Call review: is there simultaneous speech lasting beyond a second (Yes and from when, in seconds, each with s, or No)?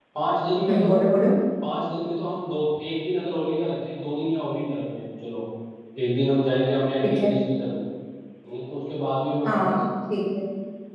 No